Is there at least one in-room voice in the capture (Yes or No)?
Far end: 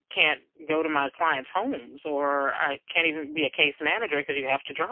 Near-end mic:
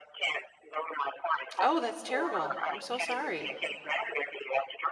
Yes